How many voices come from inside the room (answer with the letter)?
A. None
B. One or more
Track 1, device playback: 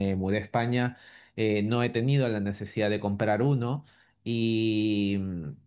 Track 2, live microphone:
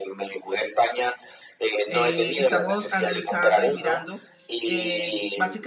B